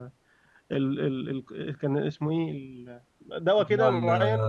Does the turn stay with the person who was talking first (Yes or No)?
No